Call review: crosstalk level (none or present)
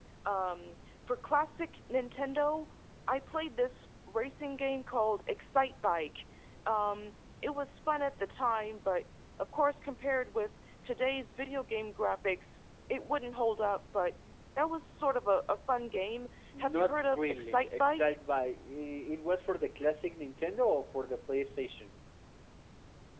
present